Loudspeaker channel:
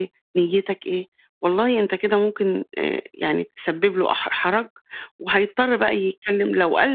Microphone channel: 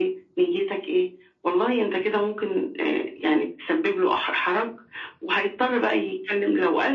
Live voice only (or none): none